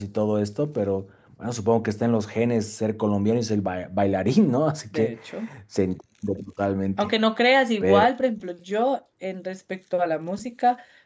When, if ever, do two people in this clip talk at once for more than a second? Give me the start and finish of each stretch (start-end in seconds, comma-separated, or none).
none